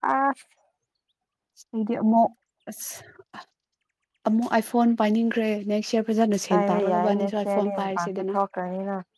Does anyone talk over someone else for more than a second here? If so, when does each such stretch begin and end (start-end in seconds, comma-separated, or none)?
6.5-8.3